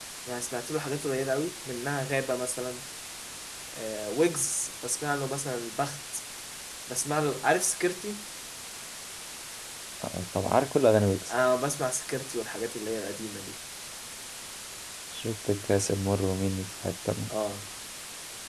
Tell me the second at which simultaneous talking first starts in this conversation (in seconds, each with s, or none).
none